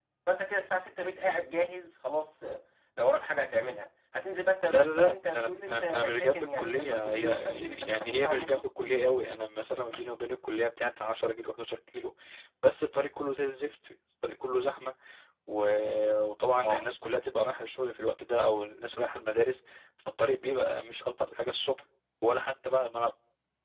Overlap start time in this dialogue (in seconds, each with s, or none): 4.7 s